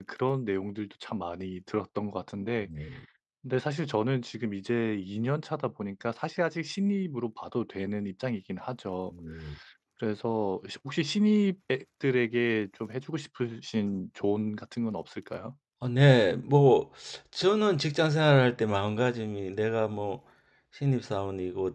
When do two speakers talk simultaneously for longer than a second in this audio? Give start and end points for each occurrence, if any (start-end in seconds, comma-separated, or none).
none